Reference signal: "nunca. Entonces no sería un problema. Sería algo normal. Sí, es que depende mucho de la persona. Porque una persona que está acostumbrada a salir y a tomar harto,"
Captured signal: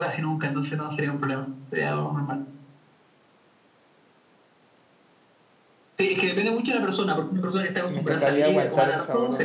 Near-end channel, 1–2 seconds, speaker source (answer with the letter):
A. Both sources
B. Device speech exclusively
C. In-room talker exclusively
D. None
B